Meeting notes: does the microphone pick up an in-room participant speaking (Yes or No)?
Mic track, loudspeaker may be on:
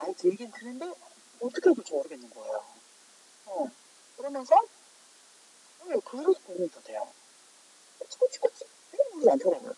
No